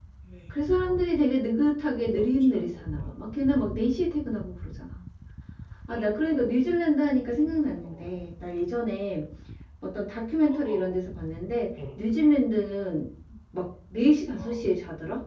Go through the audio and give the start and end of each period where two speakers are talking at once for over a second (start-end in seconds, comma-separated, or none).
1.8-3.1